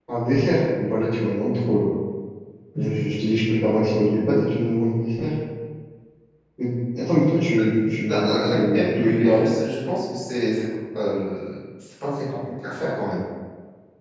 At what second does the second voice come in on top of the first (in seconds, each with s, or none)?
8.1 s